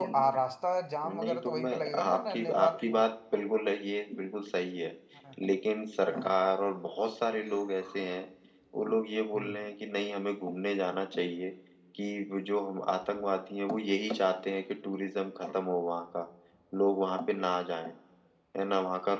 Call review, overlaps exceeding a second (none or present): present